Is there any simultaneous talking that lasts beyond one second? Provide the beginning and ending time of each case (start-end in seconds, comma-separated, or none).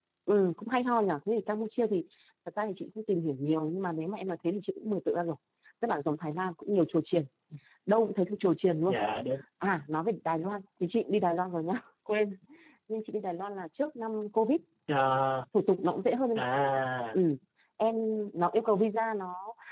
none